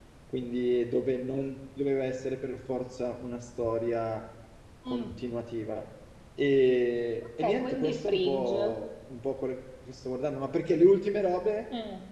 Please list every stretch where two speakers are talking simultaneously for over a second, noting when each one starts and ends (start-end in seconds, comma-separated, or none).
7.4-8.7